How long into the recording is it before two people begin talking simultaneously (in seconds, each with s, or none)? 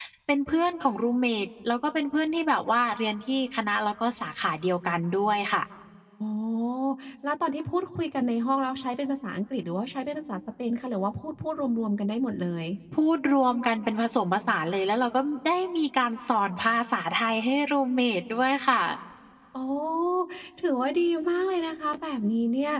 none